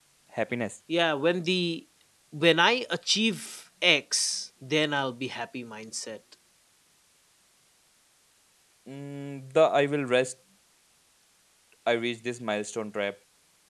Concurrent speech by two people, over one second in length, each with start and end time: none

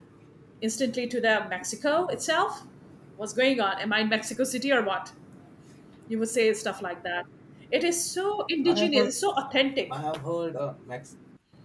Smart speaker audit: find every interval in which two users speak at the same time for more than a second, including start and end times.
none

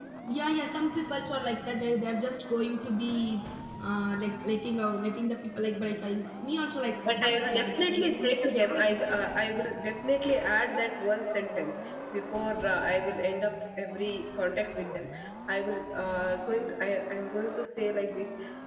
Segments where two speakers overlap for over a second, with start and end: 7.1-9.0

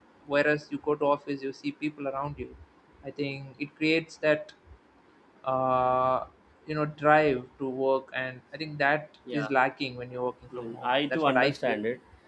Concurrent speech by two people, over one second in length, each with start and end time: 10.6-11.8

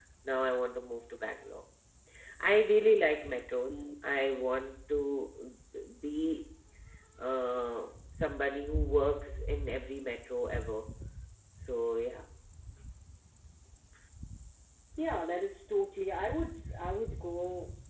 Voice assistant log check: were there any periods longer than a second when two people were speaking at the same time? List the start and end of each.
none

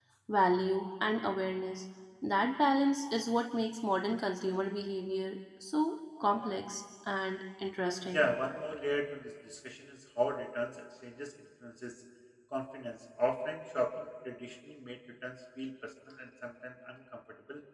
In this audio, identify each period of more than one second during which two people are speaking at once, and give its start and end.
none

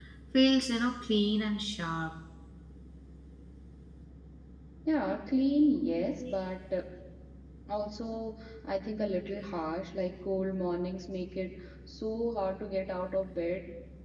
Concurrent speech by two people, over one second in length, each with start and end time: none

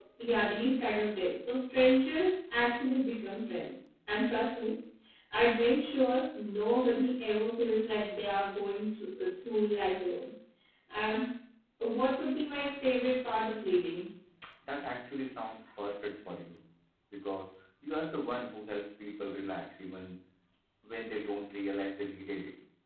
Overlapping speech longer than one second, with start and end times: none

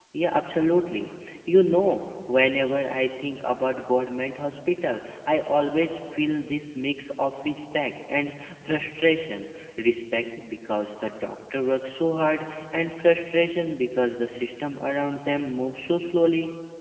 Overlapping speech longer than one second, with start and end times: none

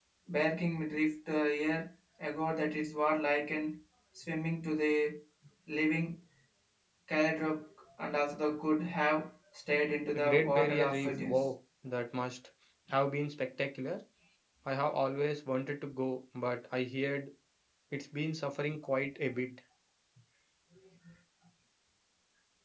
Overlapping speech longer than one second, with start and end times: 10.1-11.4

